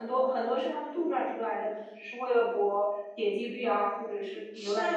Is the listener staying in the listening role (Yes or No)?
No